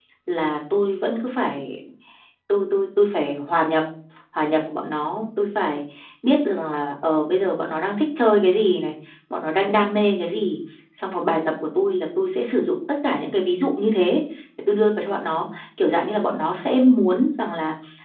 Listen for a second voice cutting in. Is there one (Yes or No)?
No